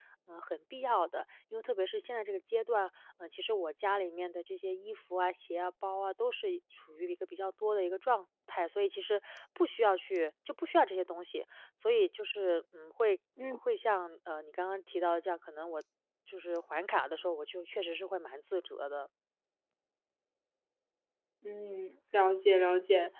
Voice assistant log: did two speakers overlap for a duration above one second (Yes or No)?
No